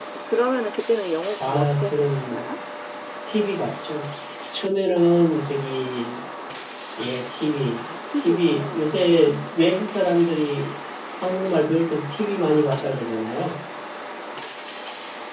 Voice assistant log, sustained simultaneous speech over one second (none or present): present